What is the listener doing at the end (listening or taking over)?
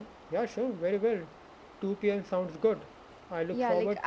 taking over